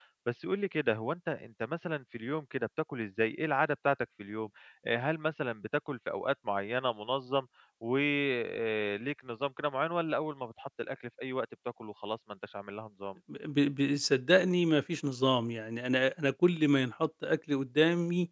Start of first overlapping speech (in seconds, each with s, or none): none